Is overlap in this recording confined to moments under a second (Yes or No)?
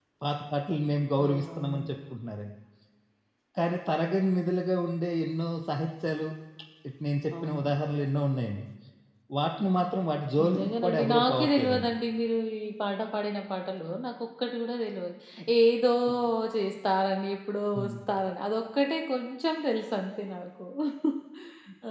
No